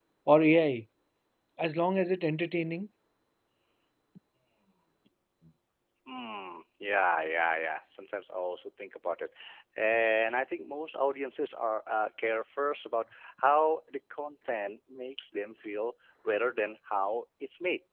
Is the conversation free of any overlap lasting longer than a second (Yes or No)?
Yes